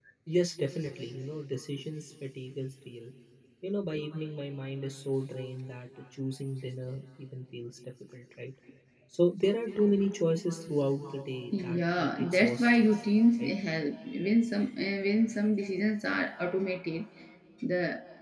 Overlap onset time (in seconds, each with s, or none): 11.5 s